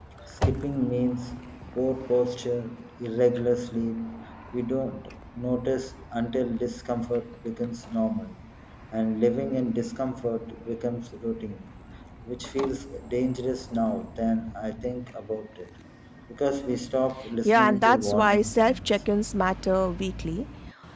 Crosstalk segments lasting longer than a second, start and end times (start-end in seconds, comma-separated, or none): 17.4-19.0